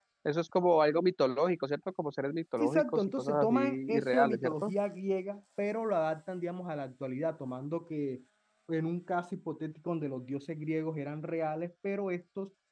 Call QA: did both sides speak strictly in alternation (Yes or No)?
No